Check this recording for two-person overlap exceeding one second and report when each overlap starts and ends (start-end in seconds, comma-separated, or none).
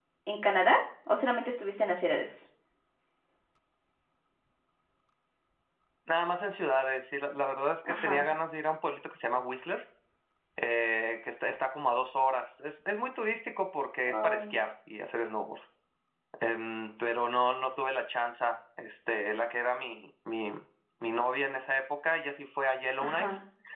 none